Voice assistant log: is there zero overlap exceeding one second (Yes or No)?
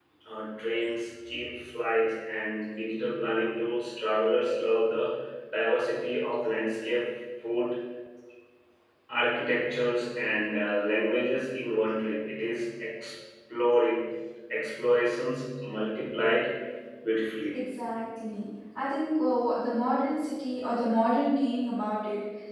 Yes